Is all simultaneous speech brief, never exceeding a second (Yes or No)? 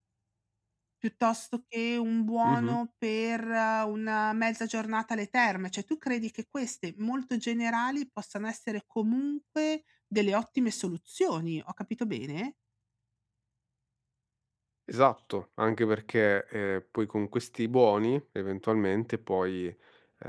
Yes